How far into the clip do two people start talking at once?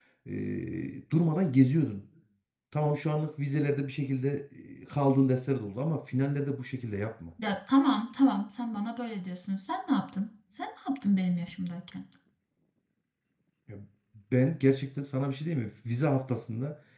none

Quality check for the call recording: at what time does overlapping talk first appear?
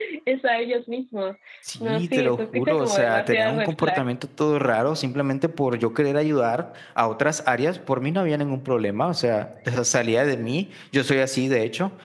2 s

